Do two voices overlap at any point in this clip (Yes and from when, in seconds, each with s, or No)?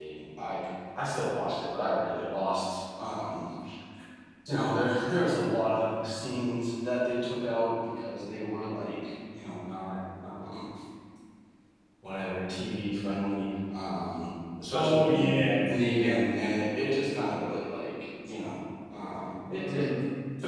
Yes, from 14.7 s